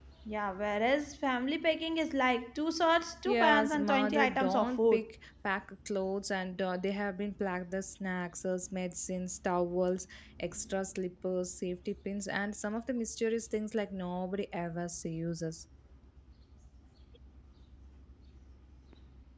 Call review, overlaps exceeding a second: present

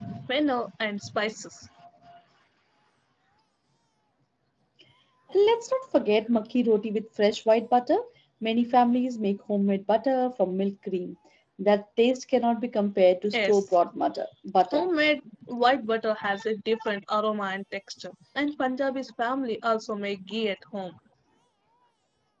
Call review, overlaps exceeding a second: none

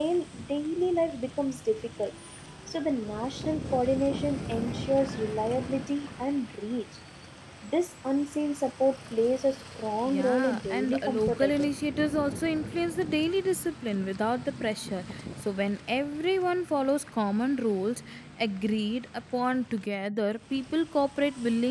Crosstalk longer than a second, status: present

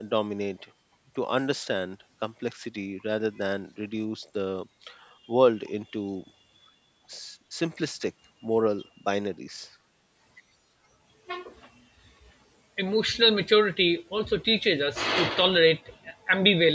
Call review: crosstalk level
none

